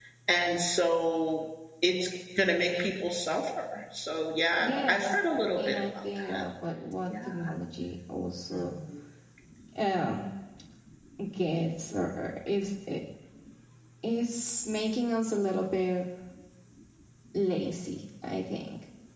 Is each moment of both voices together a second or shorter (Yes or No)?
No